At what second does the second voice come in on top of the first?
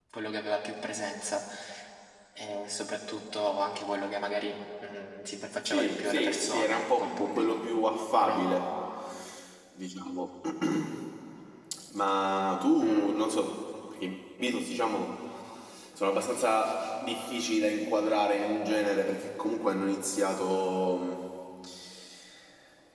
6 s

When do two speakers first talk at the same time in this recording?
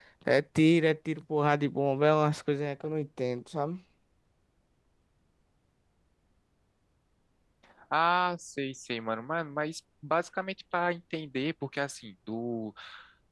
none

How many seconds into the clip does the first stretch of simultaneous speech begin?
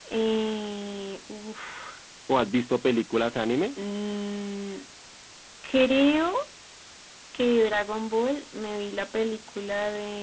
none

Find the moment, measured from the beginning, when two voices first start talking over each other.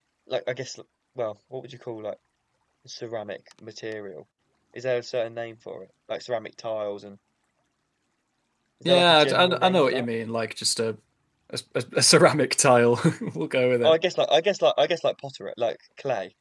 9 s

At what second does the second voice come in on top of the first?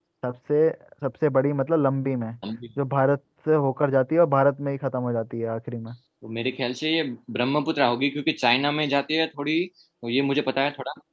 none

